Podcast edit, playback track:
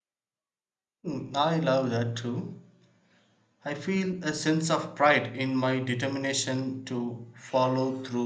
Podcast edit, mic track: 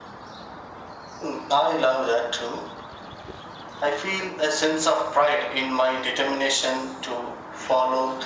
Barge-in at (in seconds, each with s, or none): none